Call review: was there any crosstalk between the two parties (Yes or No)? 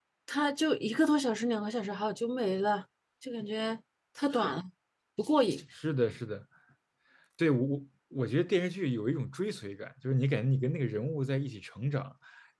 No